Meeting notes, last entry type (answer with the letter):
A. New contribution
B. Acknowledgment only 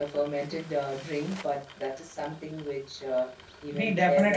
A